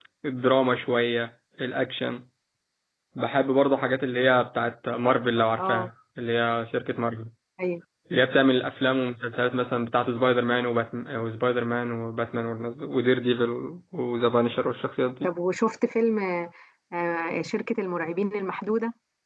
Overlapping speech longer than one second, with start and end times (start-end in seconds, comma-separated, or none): none